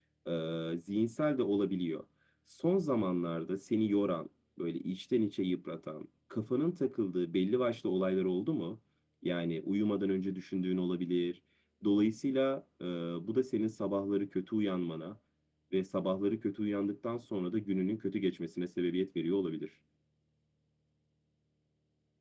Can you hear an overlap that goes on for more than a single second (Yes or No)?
No